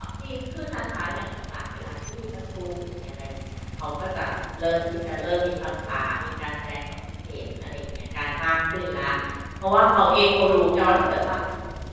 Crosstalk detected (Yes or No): No